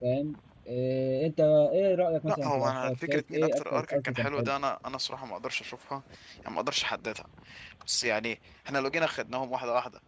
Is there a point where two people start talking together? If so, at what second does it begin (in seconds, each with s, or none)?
2.3 s